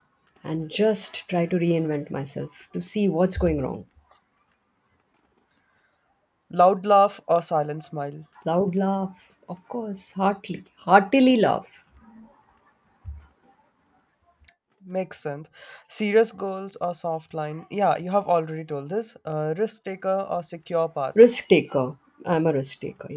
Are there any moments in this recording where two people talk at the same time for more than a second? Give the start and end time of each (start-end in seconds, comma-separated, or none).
none